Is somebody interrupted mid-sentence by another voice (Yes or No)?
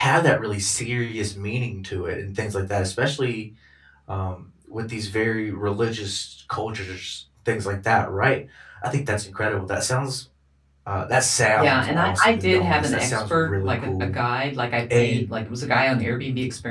Yes